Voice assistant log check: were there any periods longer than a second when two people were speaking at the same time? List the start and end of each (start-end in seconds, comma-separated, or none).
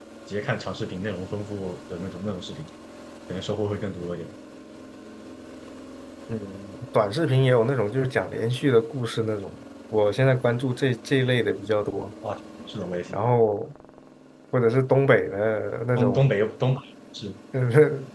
none